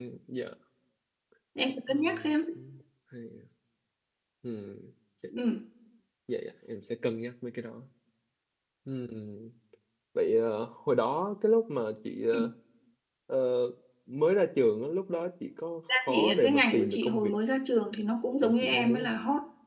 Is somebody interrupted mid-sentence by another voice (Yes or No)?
Yes